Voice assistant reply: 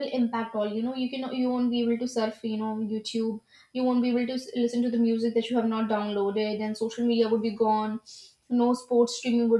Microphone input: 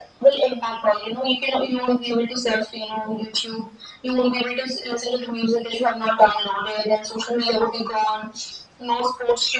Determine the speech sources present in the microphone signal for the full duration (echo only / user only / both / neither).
echo only